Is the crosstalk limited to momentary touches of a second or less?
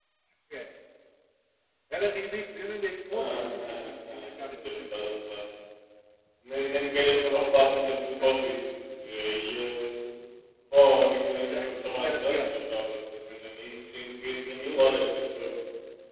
No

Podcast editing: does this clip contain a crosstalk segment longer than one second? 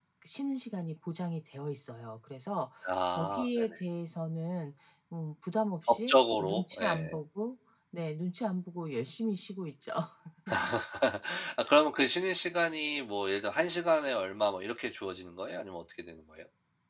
Yes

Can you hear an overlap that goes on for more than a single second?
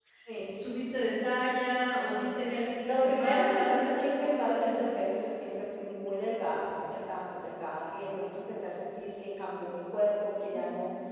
Yes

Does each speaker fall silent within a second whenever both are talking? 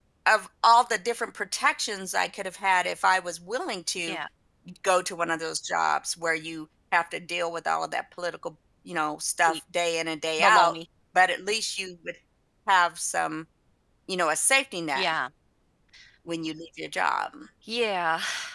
Yes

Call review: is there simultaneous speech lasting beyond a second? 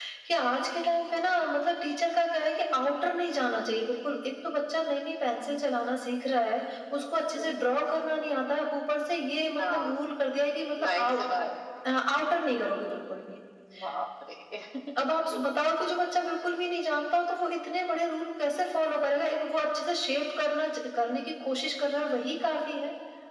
No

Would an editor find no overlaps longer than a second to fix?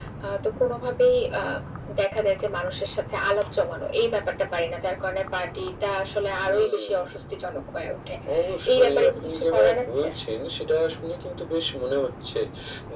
No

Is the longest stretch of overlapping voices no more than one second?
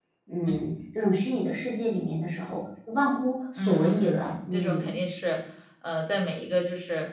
No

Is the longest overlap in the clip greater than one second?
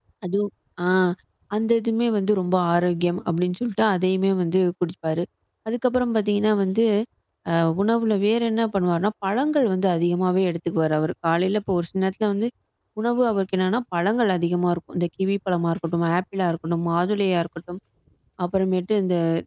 No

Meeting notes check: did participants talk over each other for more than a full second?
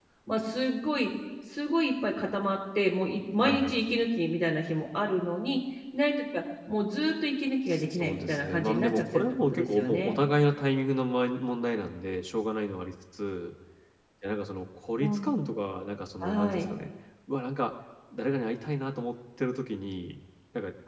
Yes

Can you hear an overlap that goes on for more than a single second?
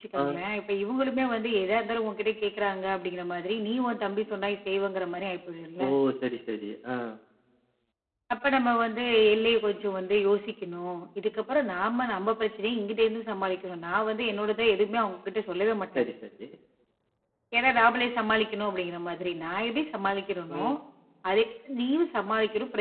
No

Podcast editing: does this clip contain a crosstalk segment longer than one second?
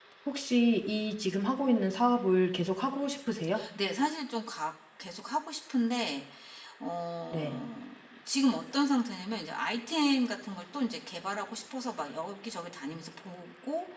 No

